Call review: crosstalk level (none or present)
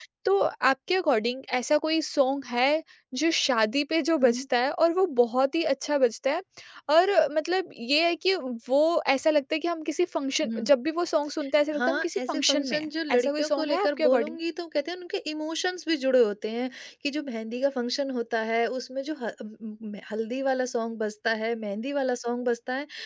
present